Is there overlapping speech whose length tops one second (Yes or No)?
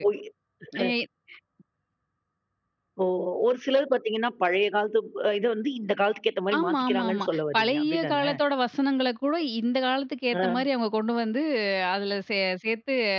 Yes